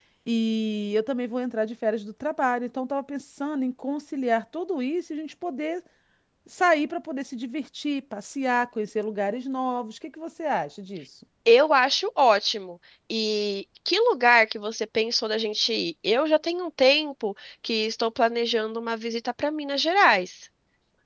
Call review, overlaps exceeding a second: none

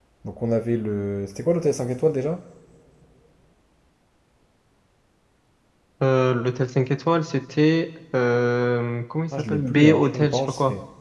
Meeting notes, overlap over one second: present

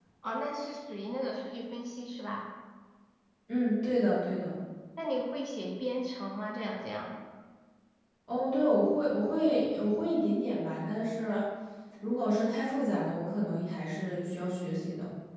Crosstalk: none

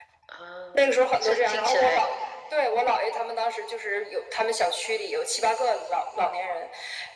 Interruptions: present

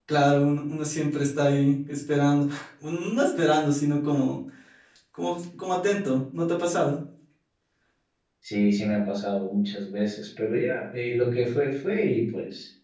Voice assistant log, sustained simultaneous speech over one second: none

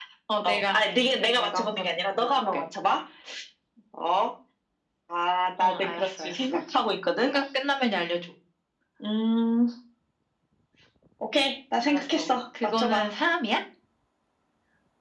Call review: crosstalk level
present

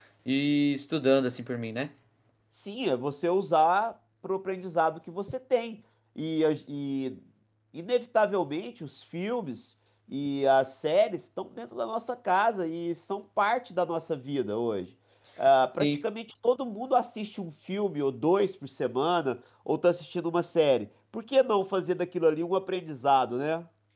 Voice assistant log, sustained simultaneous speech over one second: none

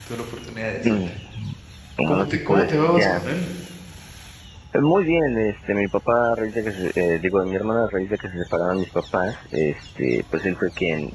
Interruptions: present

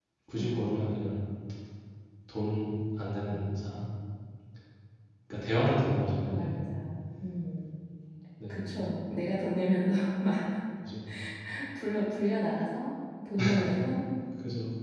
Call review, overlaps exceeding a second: none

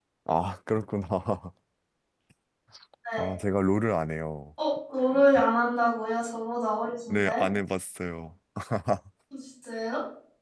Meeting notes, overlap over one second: none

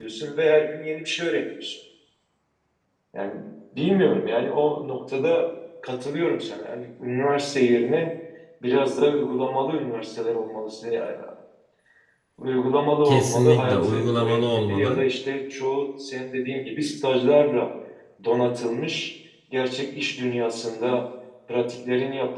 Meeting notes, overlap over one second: present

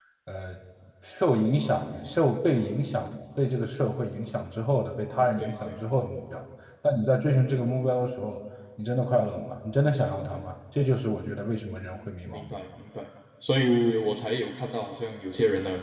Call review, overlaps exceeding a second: none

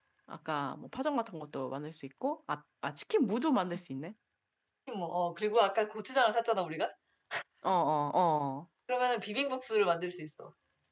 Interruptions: none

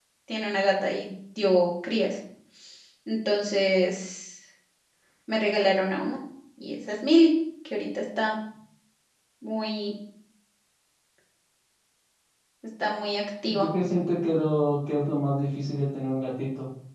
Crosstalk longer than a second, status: none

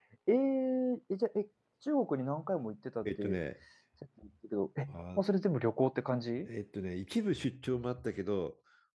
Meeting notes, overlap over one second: none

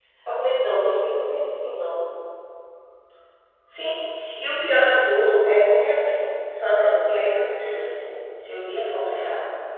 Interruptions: none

